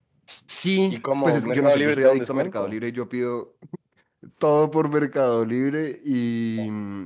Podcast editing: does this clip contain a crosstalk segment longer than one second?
Yes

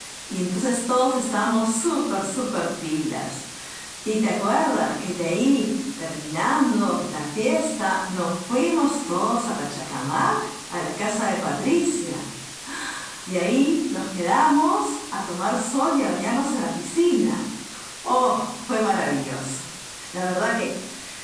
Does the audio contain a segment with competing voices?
No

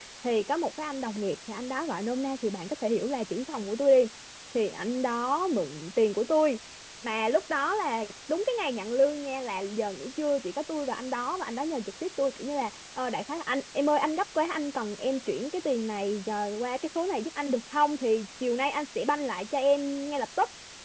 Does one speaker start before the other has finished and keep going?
No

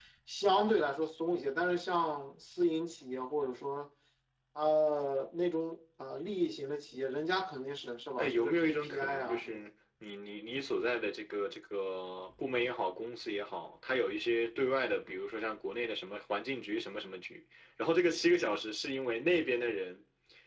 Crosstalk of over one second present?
Yes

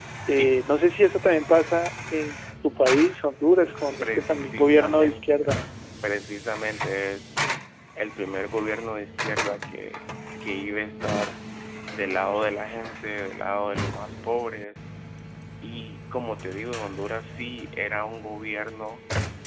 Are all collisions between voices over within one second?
No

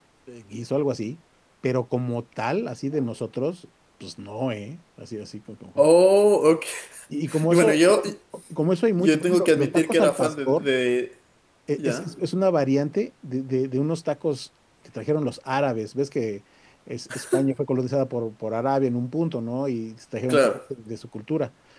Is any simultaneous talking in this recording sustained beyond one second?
Yes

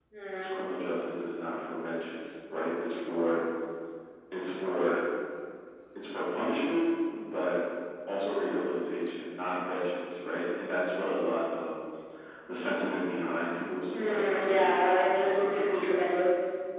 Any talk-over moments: Yes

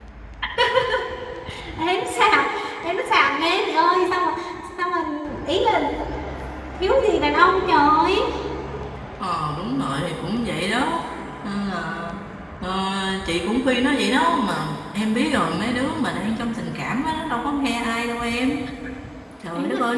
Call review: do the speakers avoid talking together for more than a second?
Yes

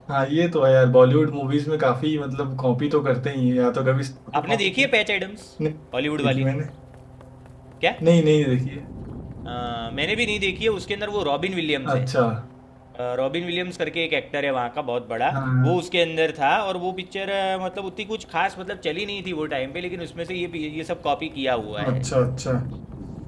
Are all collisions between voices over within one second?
Yes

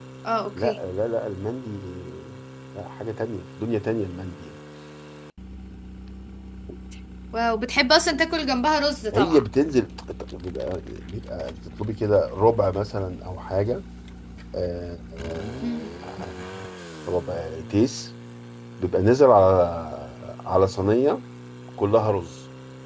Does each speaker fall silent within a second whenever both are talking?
Yes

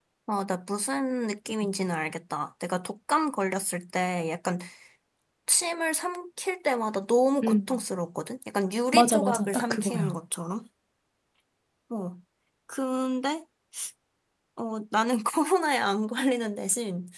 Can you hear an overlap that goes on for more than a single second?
Yes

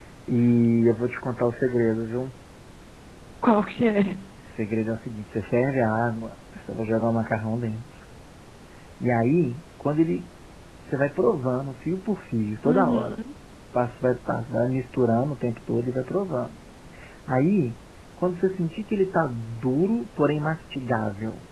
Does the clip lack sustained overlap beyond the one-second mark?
Yes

